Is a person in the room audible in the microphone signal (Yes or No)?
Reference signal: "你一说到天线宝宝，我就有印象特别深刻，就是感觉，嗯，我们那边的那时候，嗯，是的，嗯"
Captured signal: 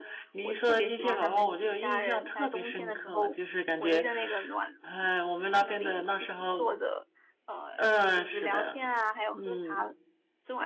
Yes